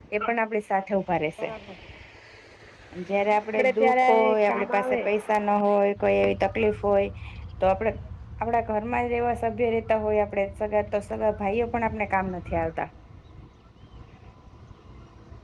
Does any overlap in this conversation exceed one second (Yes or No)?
Yes